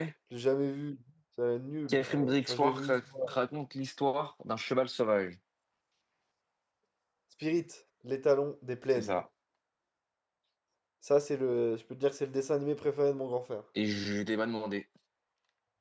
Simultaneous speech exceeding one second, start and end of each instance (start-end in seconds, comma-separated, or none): 1.9-3.4